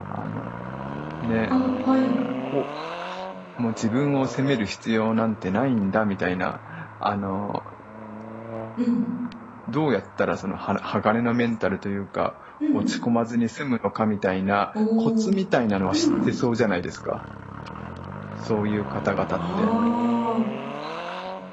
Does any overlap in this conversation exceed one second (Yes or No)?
No